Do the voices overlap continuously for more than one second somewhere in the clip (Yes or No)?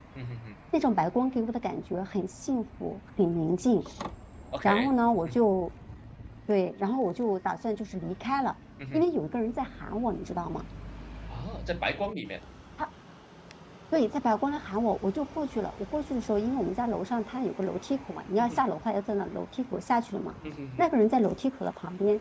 No